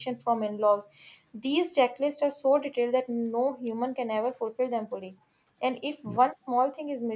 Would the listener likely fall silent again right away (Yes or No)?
Yes